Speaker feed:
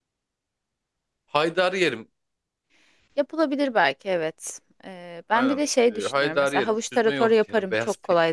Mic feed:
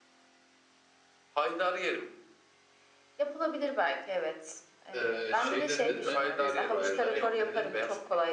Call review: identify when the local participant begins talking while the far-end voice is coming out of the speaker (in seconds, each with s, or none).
4.9 s